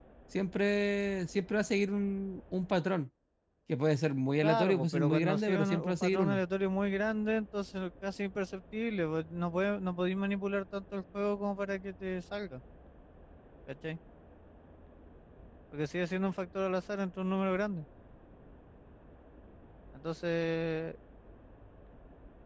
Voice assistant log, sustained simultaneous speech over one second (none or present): present